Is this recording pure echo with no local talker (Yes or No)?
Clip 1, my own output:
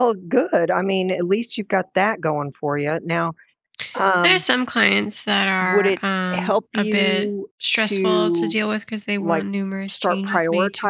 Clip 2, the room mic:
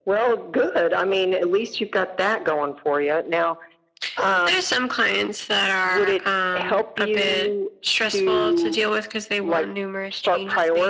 Yes